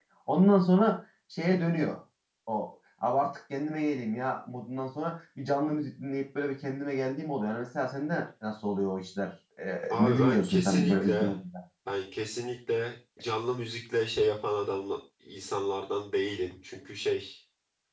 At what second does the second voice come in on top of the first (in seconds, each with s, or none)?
9.9 s